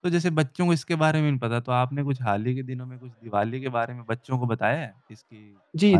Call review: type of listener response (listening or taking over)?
taking over